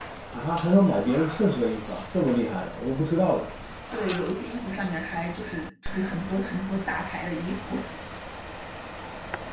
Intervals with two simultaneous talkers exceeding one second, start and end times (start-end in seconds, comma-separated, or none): none